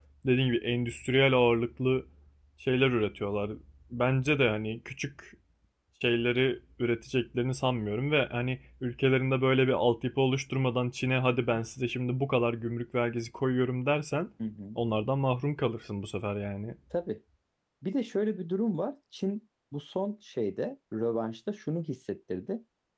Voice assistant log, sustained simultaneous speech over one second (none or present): none